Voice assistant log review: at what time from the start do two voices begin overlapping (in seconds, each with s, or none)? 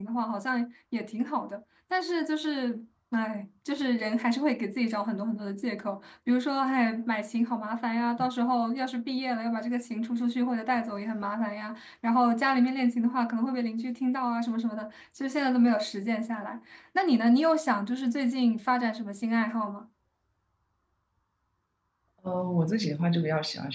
none